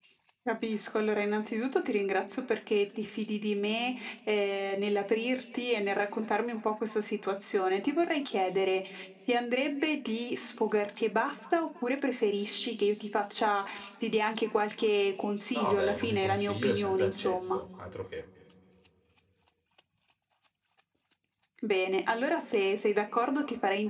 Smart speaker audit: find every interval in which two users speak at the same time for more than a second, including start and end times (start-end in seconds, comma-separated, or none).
15.5-17.6